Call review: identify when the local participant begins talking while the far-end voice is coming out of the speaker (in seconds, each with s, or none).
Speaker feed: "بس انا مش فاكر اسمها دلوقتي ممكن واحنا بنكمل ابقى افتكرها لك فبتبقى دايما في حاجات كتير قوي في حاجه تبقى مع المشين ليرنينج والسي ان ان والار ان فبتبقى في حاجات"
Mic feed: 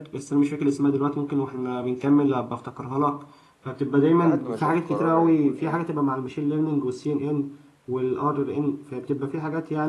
4.2 s